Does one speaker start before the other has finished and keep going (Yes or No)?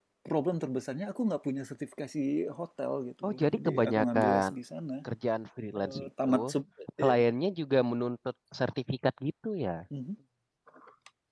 Yes